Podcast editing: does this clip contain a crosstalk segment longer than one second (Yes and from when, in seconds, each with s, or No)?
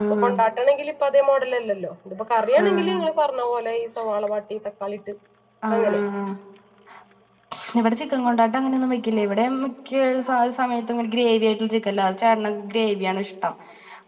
No